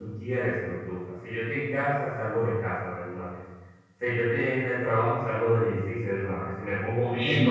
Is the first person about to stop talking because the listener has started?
Yes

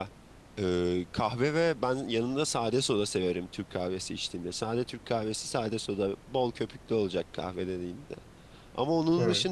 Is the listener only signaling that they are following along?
Yes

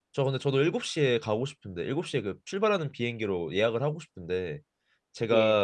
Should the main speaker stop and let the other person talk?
No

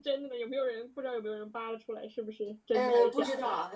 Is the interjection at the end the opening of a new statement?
Yes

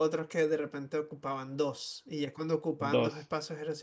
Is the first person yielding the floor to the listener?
No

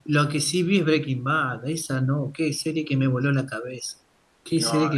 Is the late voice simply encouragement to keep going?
Yes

